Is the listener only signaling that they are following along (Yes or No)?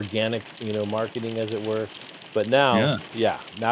Yes